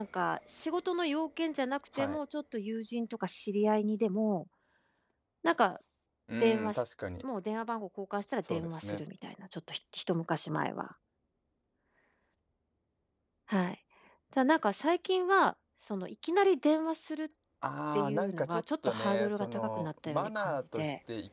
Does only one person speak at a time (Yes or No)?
No